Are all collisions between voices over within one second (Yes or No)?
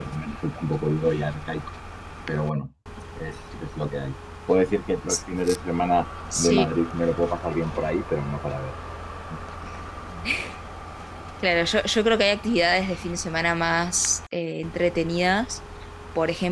Yes